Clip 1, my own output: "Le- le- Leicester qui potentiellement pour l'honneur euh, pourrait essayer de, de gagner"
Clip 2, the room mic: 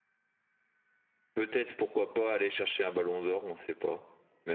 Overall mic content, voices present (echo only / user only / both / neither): user only